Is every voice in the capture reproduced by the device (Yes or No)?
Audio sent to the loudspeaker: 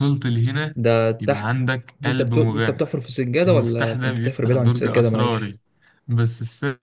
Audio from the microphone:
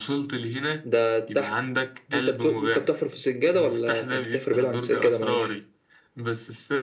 Yes